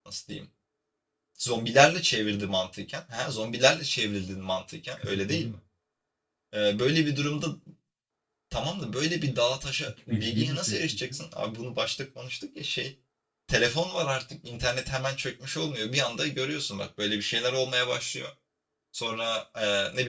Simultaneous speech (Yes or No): Yes